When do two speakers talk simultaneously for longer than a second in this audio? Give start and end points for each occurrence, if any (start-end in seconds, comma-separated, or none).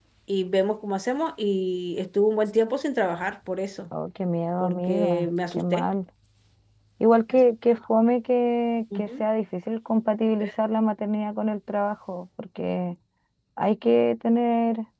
4.6-5.8